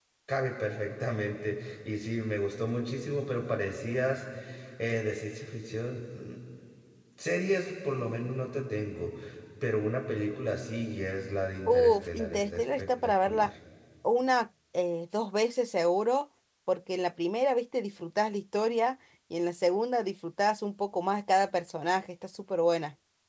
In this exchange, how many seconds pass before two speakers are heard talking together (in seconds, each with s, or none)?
11.7 s